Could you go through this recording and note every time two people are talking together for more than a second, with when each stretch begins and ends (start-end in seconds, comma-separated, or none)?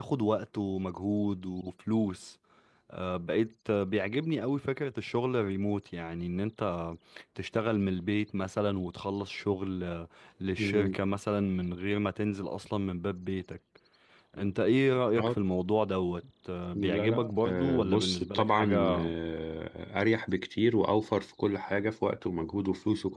16.8-19.1